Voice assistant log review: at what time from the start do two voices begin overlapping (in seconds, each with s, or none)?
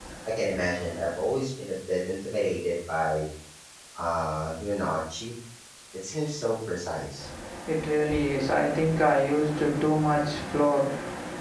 none